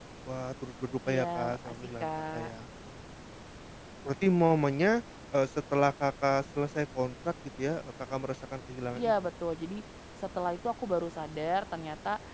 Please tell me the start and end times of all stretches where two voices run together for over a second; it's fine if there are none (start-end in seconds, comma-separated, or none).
1.1-2.5